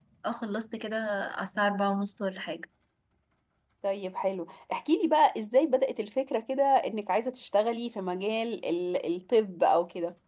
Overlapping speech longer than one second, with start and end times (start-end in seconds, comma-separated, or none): none